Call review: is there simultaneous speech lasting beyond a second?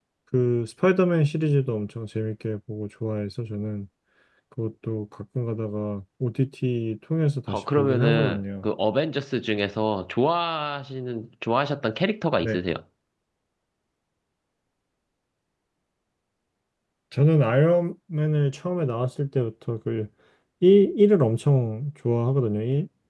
Yes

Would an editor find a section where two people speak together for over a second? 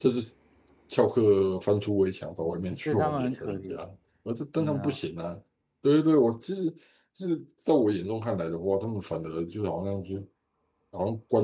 Yes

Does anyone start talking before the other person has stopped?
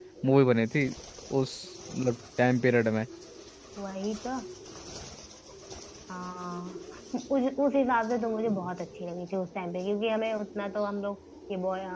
No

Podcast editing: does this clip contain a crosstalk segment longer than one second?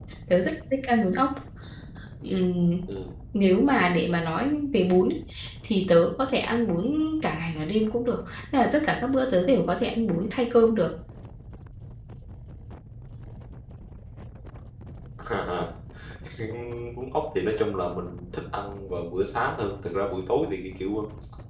No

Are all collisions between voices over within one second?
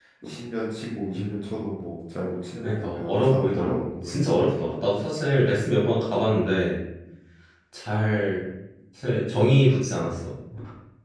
No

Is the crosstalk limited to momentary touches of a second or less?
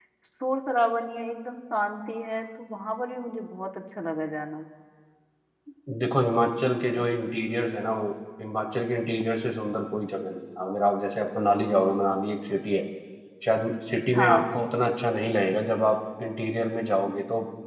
Yes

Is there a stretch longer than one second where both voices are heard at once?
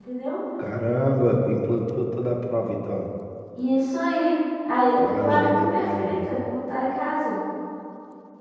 Yes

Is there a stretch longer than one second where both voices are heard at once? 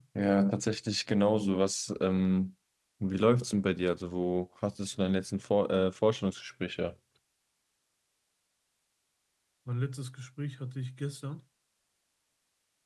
No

